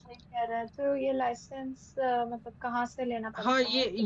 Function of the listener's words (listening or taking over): taking over